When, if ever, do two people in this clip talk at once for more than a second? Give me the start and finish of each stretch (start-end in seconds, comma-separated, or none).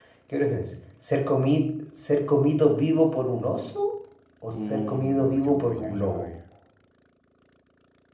4.6-6.3